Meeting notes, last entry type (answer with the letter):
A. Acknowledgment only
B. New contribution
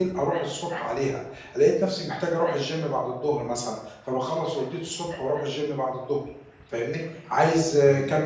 A